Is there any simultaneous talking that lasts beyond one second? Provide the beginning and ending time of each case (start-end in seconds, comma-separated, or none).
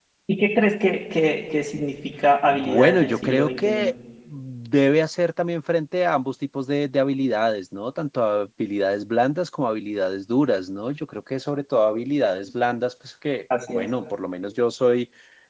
2.5-3.9